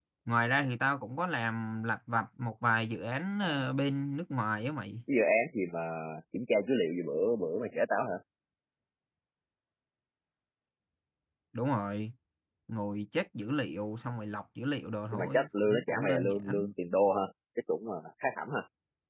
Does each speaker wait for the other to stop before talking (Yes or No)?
No